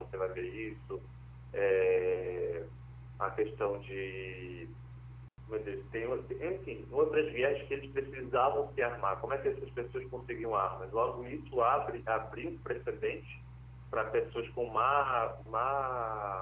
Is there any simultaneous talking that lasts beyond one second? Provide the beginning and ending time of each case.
none

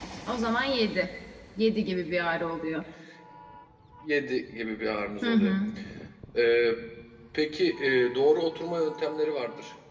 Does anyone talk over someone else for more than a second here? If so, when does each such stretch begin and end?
none

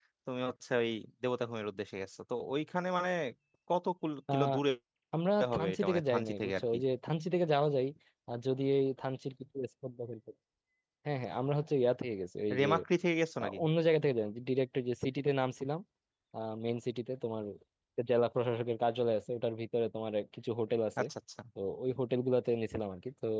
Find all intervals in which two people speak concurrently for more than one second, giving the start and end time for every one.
5.5-6.8

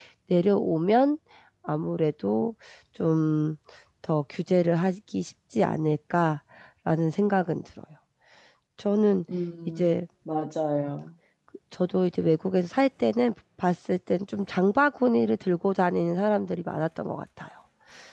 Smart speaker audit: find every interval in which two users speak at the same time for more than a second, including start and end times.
none

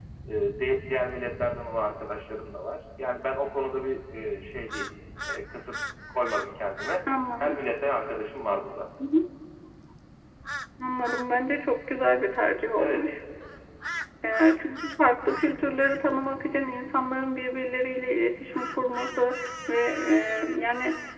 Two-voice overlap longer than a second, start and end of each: none

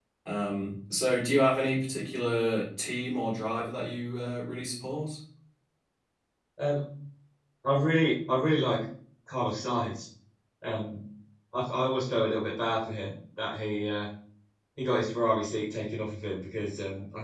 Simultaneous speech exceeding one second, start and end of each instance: none

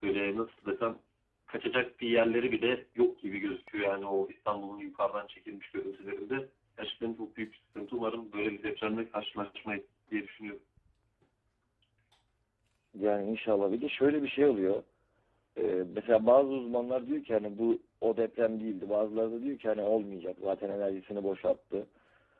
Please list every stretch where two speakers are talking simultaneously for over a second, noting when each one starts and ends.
none

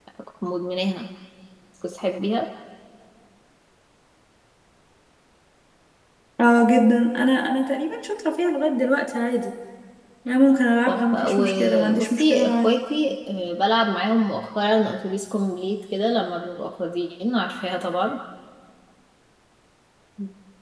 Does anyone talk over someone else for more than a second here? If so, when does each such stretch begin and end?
10.9-12.8

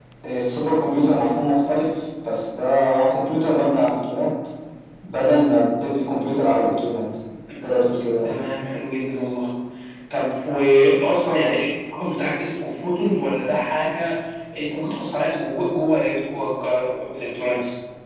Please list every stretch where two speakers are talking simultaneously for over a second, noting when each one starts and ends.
none

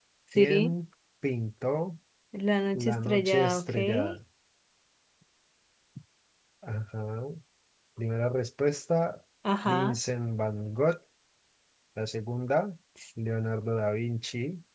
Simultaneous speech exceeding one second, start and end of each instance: 2.8-4.2

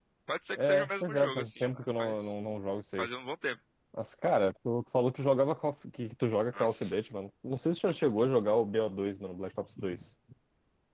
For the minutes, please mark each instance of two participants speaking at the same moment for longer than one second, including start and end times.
0.6-2.3

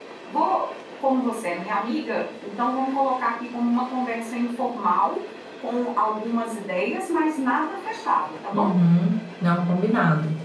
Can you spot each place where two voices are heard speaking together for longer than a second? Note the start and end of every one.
none

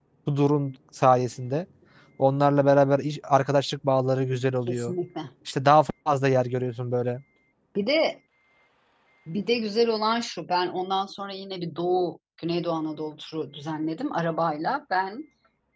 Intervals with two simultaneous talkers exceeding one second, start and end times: none

